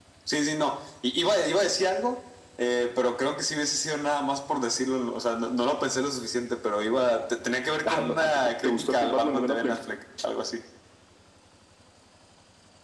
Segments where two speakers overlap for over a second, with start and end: 7.8-9.8

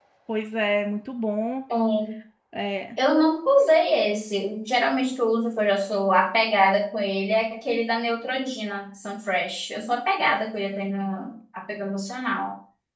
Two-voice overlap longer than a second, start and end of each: none

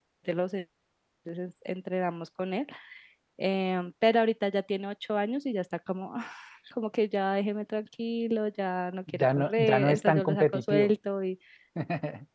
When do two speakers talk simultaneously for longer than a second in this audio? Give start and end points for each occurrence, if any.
9.1-10.9

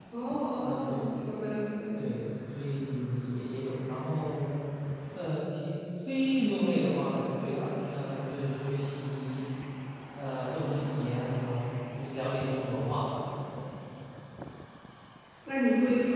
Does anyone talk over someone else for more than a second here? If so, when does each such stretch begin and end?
none

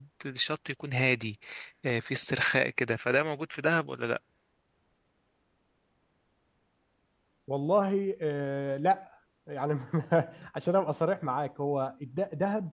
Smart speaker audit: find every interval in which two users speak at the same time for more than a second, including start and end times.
none

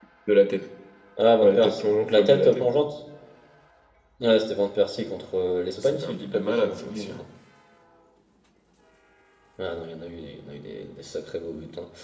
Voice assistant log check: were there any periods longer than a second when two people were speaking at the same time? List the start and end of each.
1.4-2.7, 5.8-7.2

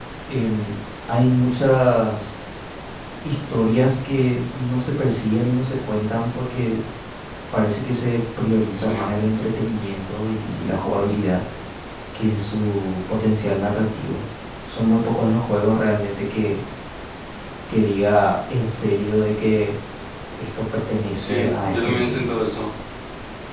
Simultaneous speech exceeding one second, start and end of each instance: 21.1-22.3

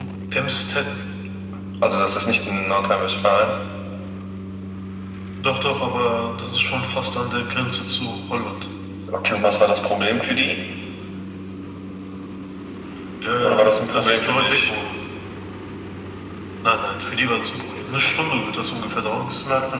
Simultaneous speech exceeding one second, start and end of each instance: 13.4-14.7

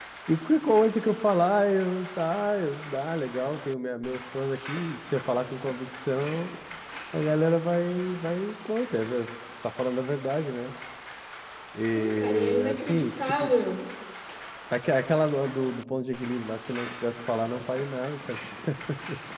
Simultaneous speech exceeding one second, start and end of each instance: 11.9-13.5

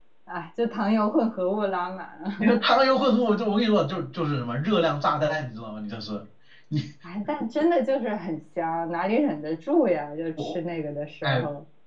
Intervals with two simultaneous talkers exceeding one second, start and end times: none

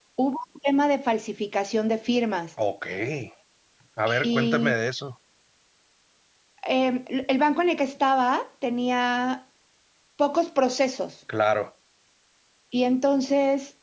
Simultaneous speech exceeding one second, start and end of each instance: none

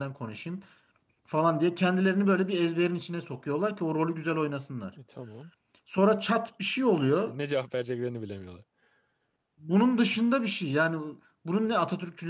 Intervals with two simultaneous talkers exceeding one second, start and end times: none

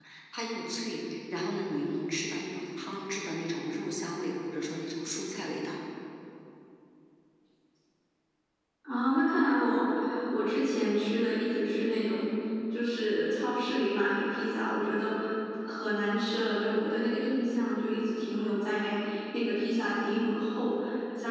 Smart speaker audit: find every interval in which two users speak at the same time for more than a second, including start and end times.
none

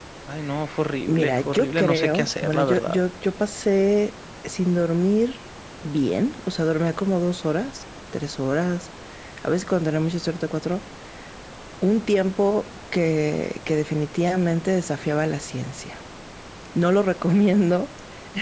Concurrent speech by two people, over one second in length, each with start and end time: 1.1-3.0

